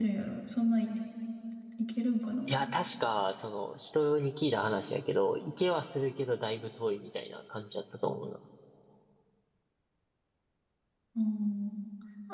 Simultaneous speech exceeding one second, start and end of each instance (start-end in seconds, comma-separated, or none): none